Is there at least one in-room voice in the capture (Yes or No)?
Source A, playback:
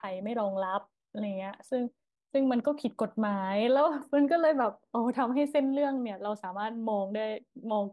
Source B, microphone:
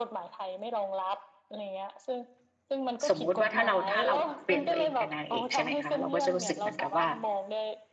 Yes